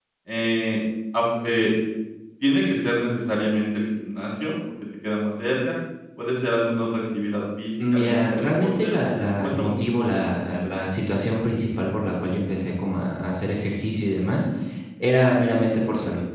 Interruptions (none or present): present